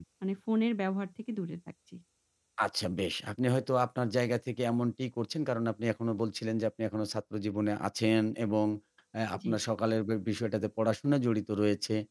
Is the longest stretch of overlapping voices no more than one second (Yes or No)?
Yes